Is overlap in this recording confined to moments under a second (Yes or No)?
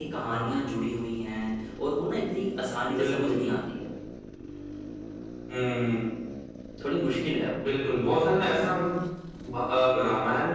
Yes